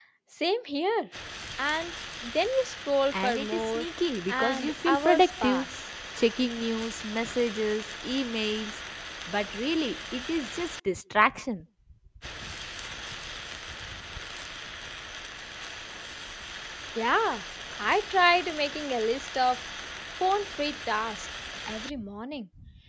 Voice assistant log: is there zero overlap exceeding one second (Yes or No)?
No